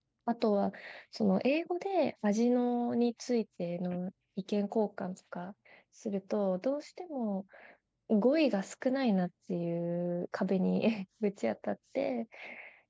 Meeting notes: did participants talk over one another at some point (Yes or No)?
No